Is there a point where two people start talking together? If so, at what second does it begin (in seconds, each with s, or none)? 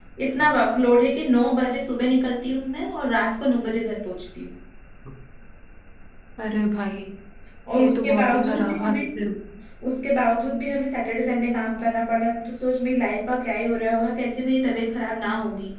7.8 s